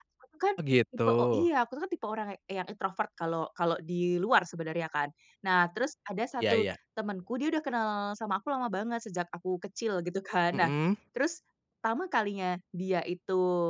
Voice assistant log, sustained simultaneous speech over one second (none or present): none